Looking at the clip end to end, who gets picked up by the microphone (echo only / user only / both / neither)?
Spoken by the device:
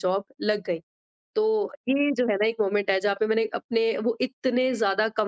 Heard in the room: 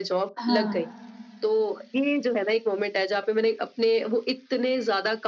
both